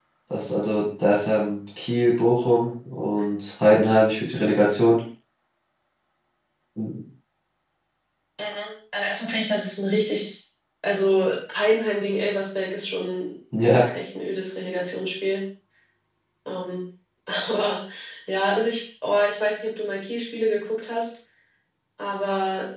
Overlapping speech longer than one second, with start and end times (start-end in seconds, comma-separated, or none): none